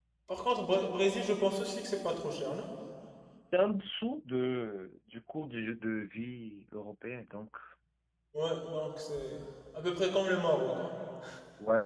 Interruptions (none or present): none